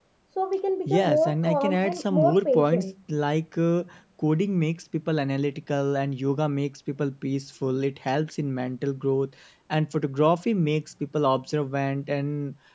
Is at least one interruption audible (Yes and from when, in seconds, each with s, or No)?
Yes, from 0.9 s